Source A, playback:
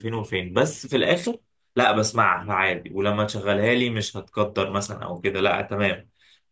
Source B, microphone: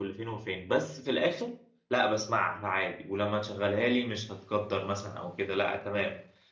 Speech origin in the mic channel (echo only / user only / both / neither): echo only